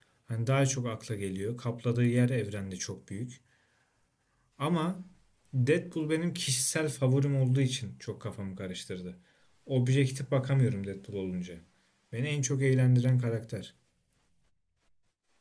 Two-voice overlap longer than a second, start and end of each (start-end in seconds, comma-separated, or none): none